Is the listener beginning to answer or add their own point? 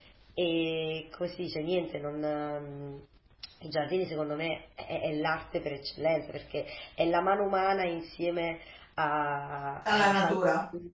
No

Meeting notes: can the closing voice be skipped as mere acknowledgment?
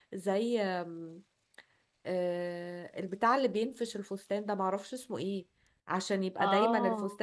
Yes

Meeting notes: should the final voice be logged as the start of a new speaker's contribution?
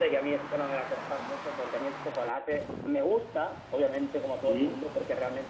No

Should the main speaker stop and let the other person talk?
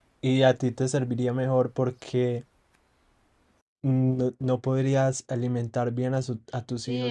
Yes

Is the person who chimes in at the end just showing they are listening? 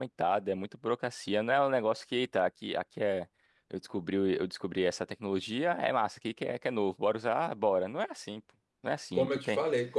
No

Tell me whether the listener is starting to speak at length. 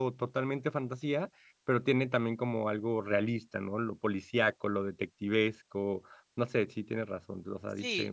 Yes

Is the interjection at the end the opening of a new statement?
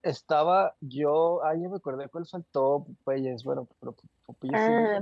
Yes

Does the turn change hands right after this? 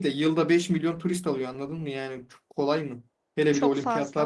No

